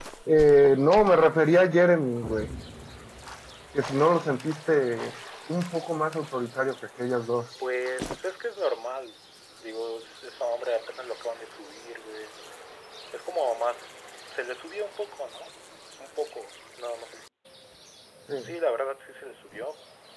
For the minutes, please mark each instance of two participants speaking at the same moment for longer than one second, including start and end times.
none

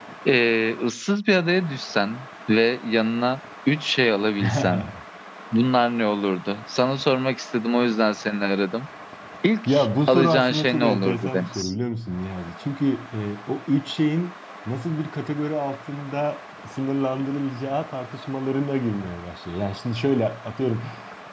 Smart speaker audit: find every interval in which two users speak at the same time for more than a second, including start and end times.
10.1-11.7

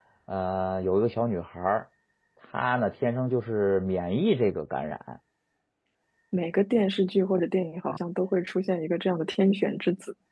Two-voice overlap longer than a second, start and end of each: none

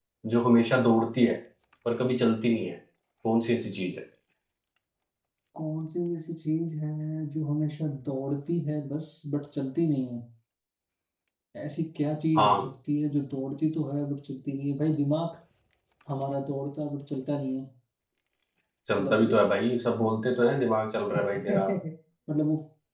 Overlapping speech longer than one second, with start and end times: none

